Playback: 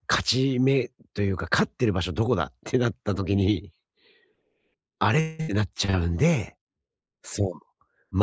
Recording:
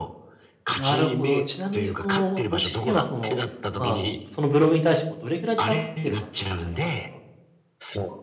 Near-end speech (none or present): present